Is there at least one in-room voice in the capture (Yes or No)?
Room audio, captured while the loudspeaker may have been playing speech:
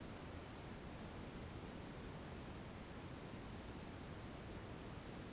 No